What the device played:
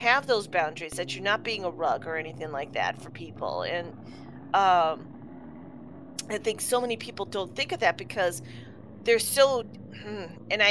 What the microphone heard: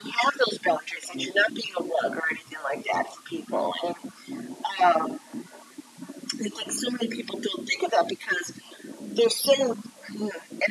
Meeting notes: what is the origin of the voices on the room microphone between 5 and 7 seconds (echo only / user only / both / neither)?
echo only